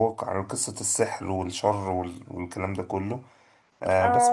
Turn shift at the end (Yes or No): Yes